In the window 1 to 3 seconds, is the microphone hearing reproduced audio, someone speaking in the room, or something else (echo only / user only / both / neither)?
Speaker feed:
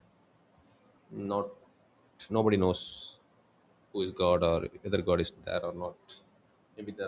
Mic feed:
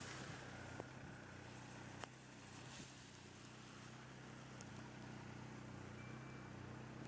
neither